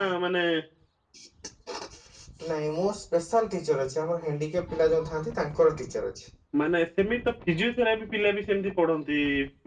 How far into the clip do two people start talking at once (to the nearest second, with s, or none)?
none